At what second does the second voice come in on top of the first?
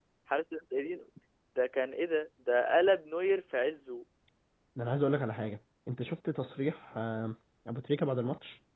none

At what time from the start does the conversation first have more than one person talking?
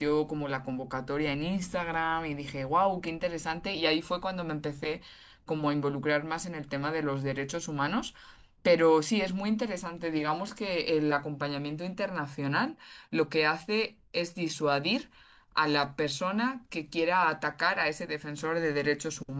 none

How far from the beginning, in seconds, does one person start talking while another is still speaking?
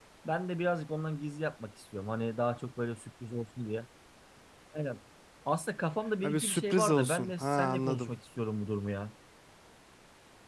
6.2 s

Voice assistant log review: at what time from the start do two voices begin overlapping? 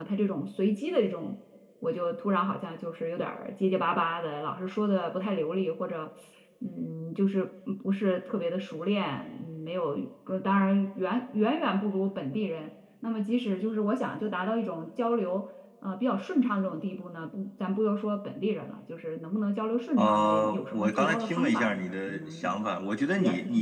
20.0 s

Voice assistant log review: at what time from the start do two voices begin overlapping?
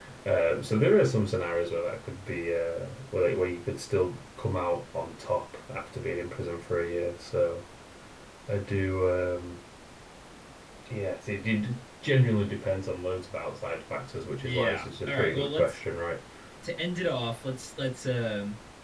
14.4 s

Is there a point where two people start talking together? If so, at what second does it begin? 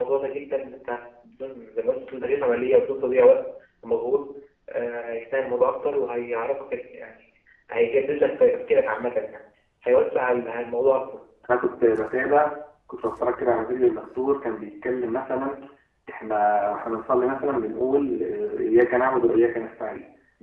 none

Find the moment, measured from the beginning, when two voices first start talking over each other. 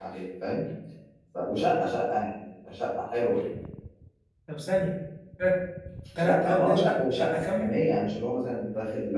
6.2 s

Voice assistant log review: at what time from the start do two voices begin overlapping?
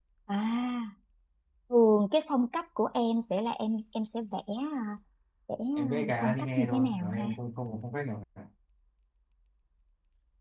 5.8 s

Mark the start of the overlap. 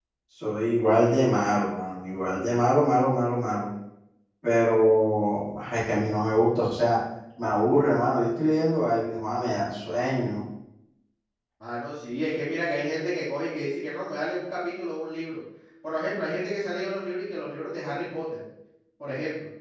none

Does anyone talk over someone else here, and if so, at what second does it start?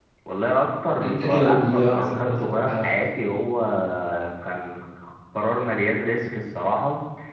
1.0 s

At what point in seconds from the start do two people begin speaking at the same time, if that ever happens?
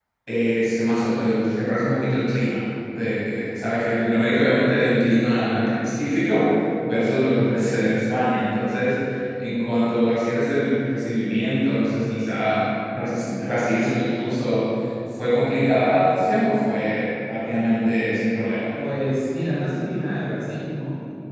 none

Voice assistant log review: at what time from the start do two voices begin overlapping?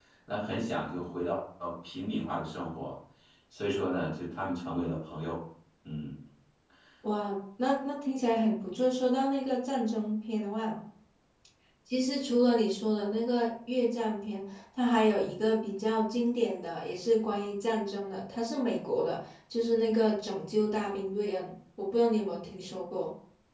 none

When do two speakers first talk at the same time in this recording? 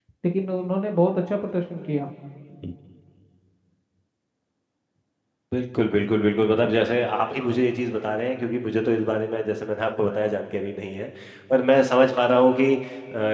none

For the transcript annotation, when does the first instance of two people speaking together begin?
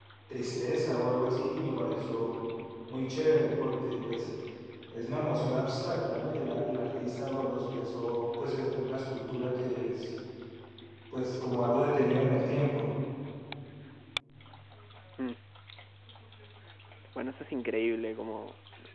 none

